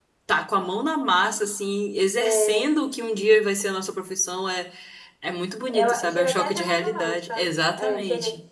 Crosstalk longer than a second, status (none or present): present